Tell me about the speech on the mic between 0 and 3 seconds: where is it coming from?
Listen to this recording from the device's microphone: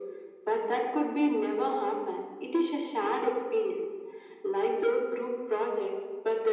echo only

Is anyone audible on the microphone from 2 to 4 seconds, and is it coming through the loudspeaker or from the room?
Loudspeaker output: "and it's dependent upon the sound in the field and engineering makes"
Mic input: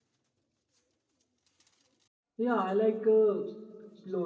user only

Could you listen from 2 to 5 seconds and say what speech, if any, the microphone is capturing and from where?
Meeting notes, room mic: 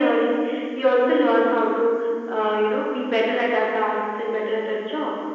echo only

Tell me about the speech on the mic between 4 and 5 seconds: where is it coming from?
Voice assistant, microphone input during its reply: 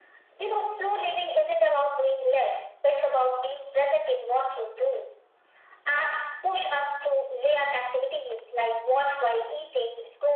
echo only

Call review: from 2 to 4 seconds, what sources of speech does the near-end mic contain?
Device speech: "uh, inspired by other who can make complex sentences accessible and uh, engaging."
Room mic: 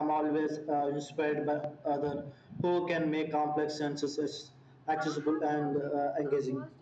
echo only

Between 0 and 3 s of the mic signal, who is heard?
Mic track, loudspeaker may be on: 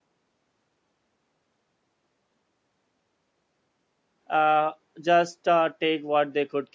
neither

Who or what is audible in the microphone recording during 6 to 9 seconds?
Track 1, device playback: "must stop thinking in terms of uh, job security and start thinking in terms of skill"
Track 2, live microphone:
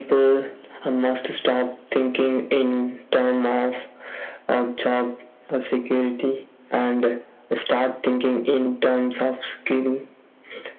echo only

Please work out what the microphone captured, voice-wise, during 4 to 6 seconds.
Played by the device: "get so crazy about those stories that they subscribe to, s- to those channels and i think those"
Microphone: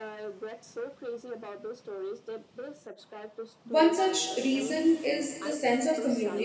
both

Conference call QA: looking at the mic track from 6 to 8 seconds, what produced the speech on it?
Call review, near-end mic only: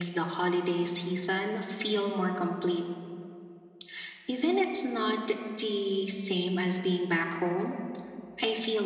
echo only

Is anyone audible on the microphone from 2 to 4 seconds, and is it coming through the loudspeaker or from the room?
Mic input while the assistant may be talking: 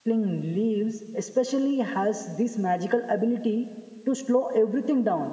user only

